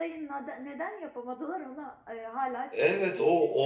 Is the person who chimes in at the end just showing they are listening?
No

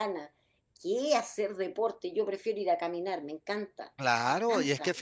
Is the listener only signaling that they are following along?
No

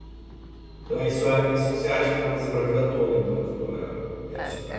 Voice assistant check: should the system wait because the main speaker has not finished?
No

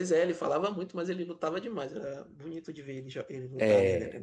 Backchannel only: No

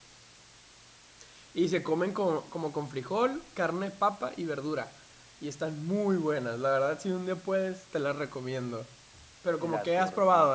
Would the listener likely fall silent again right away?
No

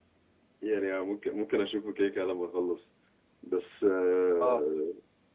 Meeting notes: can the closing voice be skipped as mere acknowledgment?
Yes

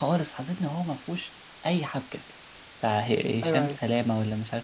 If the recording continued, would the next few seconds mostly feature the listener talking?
No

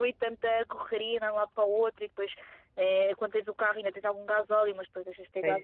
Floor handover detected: No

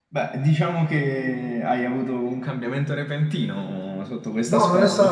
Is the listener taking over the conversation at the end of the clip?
Yes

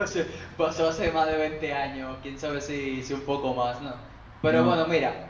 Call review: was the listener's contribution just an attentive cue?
Yes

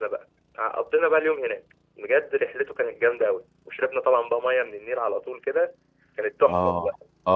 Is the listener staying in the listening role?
No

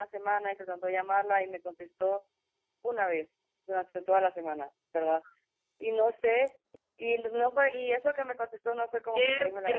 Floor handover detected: Yes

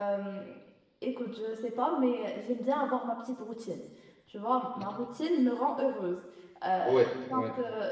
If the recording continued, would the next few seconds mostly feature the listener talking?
No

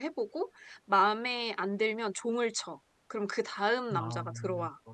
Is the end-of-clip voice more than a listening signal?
Yes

